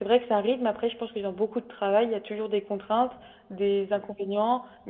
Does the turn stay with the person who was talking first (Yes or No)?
Yes